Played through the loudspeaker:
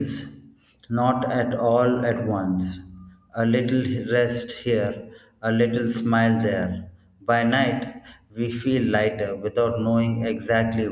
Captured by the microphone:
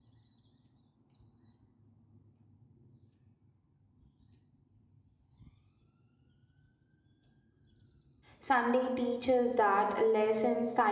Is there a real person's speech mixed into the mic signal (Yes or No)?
Yes